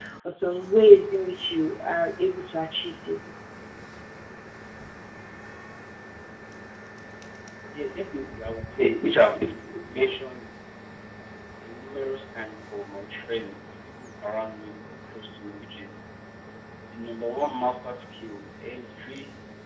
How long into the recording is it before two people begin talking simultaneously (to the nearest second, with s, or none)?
none